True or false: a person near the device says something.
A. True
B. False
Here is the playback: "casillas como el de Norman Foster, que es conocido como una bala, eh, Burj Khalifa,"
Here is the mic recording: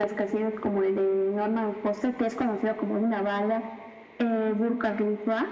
B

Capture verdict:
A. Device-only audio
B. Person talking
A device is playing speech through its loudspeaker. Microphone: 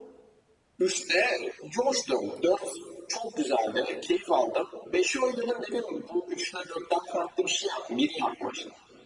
A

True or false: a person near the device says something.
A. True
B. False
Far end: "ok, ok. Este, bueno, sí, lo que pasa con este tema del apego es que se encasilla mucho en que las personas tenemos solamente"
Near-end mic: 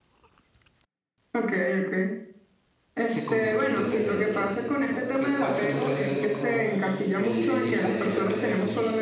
A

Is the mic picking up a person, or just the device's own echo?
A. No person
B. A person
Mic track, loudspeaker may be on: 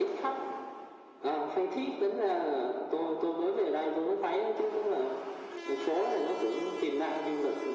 A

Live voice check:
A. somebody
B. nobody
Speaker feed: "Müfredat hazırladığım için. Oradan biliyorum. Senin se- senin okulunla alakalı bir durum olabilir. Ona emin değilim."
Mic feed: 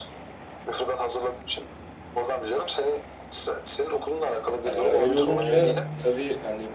A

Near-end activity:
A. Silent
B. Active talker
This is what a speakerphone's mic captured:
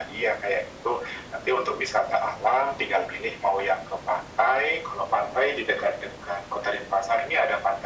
A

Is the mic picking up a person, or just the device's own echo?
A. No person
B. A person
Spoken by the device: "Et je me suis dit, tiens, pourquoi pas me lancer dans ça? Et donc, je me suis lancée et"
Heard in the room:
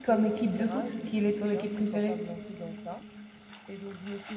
B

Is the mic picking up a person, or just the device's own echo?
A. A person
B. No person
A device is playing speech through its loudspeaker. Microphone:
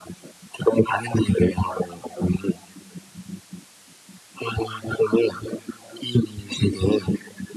B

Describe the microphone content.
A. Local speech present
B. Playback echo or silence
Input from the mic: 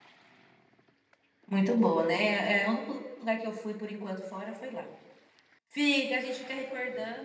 A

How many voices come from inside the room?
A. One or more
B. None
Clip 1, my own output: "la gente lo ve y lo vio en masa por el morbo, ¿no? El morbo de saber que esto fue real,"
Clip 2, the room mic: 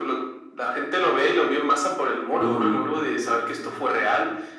A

